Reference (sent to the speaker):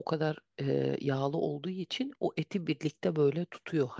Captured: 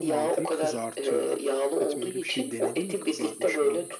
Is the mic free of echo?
No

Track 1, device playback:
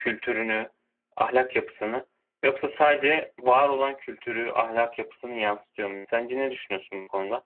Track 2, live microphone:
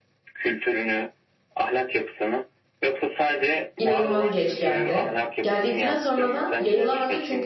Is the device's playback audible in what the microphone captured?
Yes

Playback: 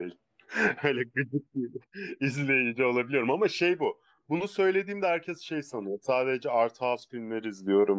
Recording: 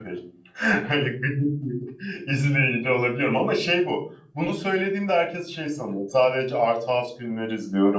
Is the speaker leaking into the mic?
Yes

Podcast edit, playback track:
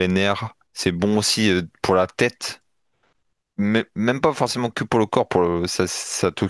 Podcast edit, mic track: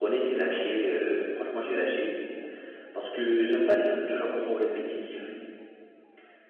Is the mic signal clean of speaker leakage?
Yes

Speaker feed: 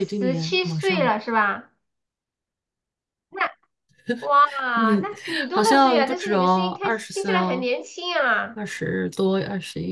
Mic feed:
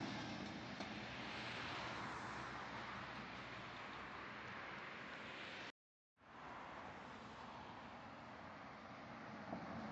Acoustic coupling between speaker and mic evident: No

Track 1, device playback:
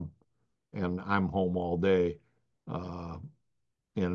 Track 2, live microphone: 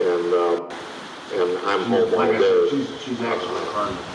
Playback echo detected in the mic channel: Yes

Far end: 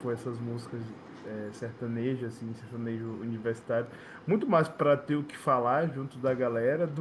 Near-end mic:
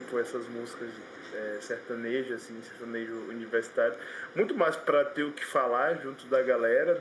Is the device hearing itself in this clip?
Yes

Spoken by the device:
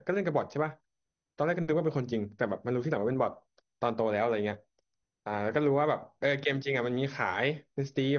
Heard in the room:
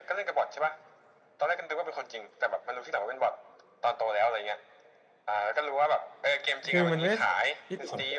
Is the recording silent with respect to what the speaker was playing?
No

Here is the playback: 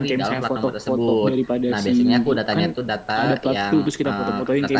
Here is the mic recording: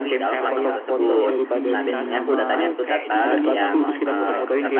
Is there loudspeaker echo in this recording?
Yes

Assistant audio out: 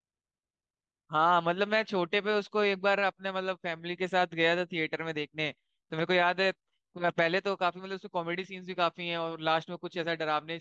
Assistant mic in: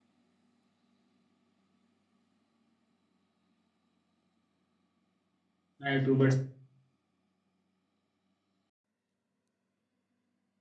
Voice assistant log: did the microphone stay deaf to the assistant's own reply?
Yes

